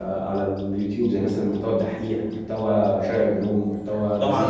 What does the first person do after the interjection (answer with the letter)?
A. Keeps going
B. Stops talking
B